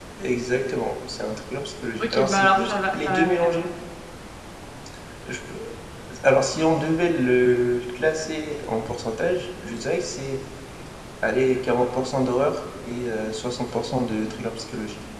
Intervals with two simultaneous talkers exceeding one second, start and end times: 2.0-3.7

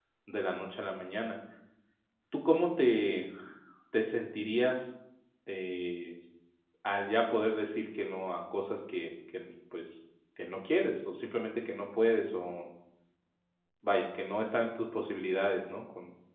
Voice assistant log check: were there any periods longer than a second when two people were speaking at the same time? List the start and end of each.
none

